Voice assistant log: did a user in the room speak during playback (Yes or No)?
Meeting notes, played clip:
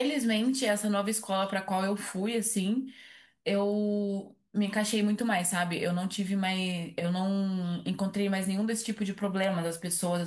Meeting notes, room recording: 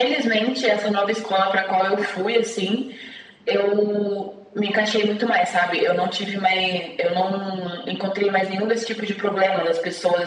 No